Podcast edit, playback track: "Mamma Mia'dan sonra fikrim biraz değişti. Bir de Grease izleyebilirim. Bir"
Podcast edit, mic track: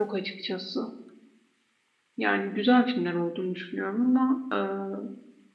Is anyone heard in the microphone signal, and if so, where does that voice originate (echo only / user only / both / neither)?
user only